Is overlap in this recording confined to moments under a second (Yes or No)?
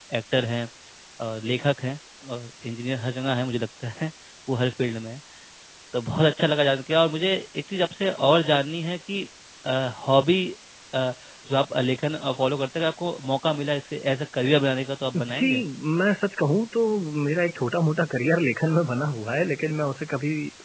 Yes